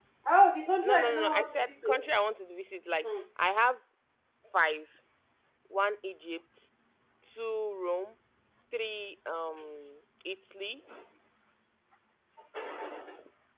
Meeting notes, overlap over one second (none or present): present